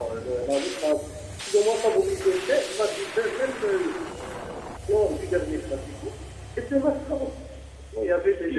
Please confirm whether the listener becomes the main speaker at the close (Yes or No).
No